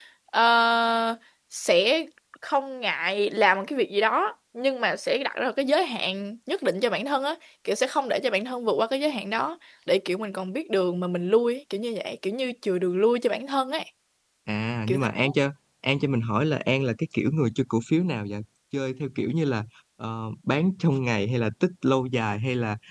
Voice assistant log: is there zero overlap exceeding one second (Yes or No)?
Yes